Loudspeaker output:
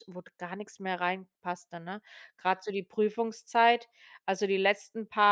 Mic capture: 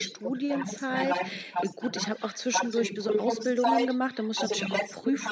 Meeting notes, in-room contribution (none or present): present